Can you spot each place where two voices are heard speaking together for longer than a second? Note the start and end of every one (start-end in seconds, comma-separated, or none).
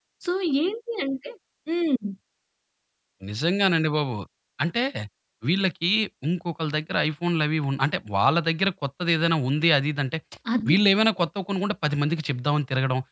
none